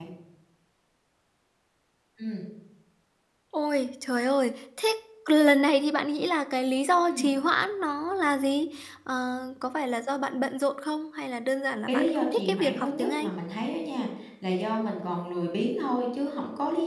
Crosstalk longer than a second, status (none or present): present